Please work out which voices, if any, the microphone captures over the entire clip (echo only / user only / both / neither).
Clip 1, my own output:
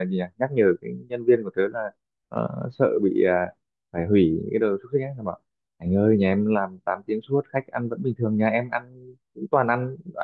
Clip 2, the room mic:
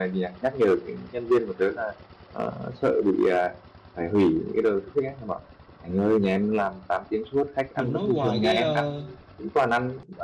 both